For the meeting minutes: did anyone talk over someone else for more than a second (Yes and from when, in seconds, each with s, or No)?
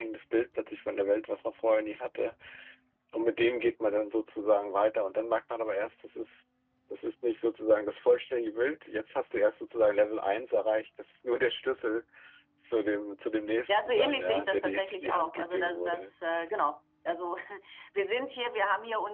Yes, from 13.7 s